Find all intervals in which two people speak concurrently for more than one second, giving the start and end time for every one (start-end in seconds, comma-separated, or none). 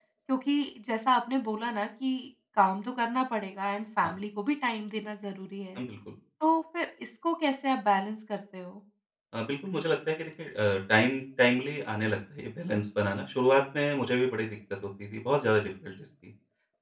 none